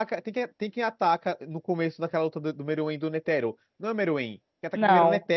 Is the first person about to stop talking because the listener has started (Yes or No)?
No